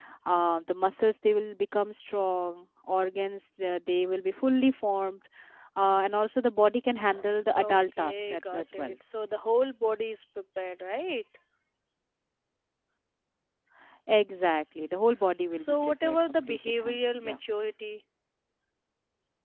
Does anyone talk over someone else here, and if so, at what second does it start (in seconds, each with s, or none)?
7.6 s